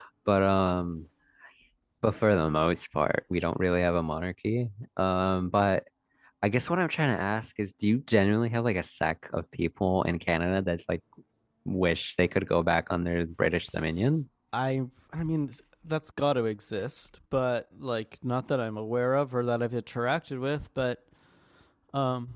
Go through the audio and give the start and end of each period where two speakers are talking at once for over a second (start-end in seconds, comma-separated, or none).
none